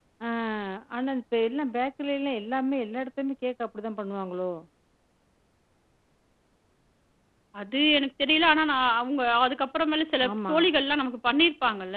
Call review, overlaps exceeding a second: none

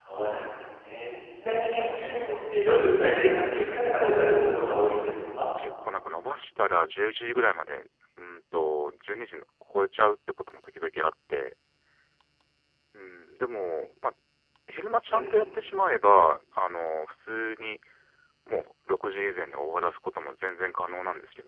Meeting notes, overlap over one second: present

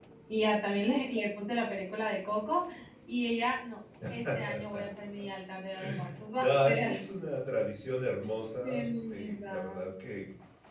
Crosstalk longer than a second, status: present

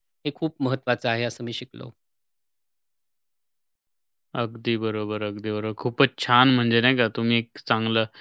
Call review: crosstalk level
none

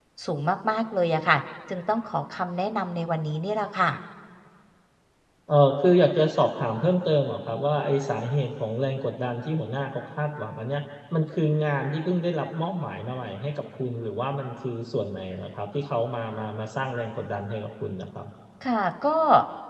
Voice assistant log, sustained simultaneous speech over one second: none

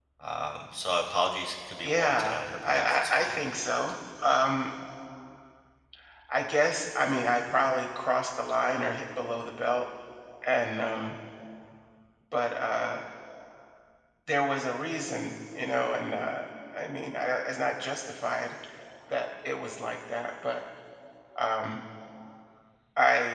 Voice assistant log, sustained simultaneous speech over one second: present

